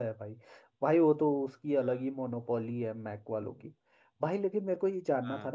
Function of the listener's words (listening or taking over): listening